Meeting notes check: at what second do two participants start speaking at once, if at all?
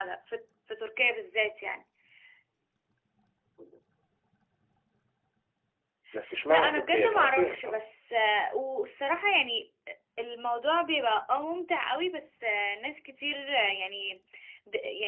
6 s

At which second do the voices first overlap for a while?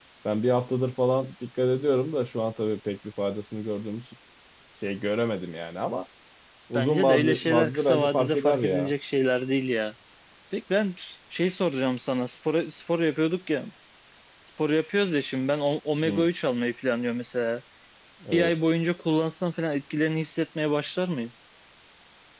7 s

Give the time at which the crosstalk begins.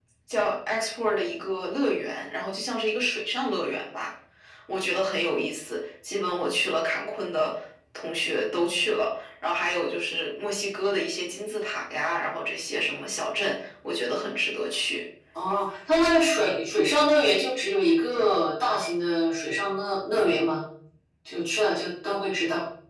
none

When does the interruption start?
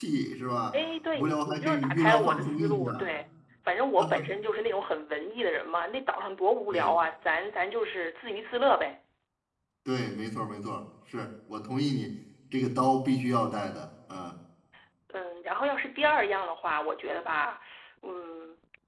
1 s

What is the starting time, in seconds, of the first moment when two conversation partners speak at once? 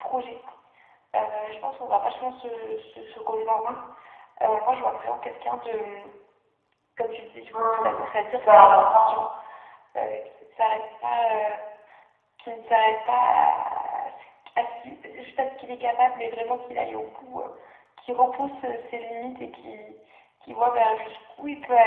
8 s

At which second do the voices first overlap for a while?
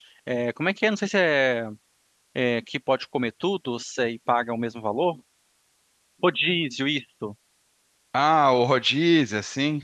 none

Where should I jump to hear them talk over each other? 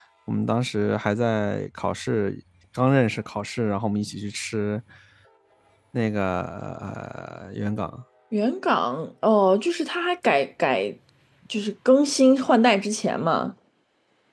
none

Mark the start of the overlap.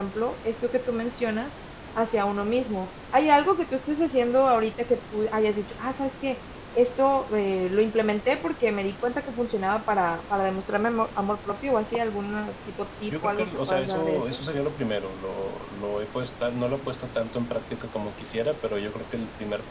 13 s

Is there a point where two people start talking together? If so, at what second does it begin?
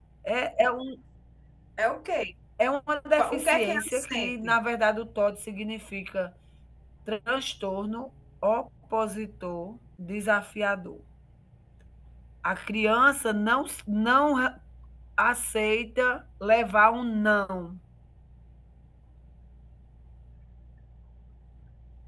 3 s

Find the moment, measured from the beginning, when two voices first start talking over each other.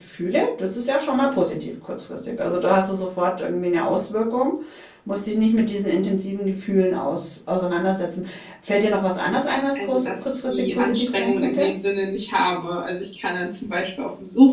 10 s

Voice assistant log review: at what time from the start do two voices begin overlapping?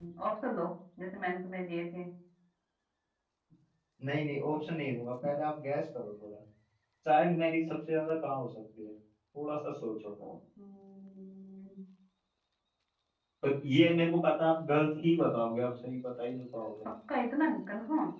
none

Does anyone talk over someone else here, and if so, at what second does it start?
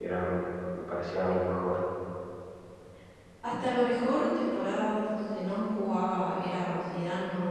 none

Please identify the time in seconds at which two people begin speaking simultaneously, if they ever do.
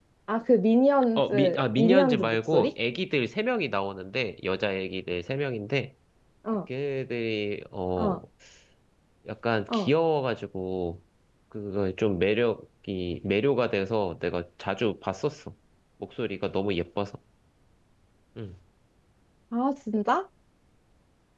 1 s

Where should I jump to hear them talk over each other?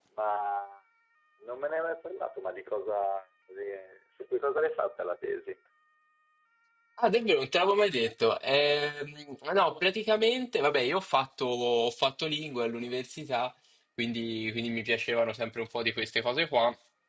none

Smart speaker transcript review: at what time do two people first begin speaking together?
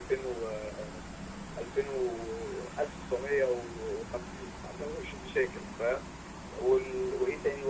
none

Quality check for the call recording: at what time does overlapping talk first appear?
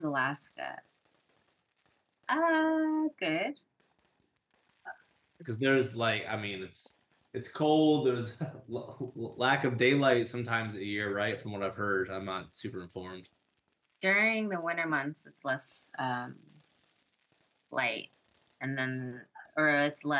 none

